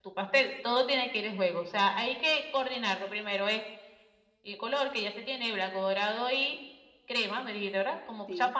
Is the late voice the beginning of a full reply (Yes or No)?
No